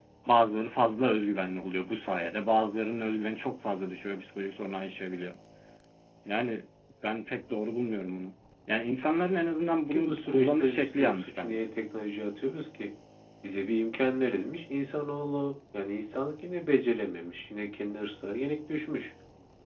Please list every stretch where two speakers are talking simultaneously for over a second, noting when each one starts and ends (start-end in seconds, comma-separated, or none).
9.9-11.6